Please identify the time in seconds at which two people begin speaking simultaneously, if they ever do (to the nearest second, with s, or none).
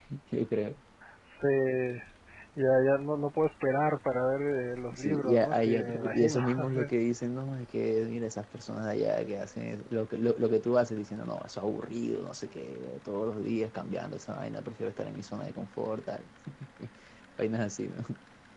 5 s